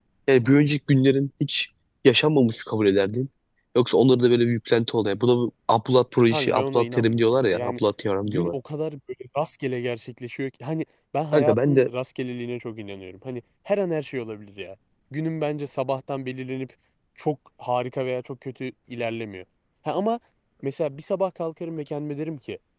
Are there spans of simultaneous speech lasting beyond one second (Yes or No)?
Yes